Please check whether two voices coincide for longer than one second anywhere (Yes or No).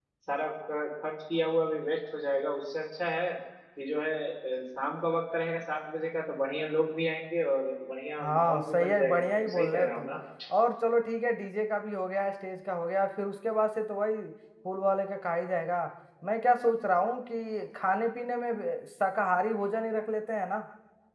Yes